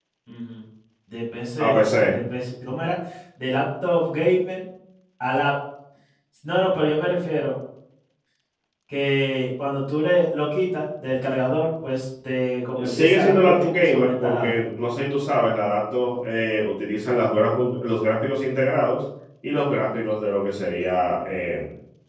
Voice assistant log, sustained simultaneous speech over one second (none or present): present